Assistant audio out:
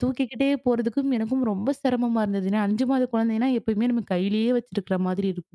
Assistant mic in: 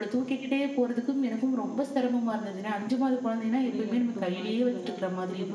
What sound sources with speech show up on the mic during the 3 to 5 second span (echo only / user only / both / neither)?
both